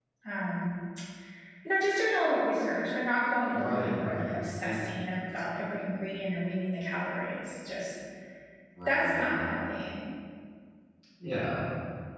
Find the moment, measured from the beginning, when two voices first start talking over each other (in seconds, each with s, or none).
3.5 s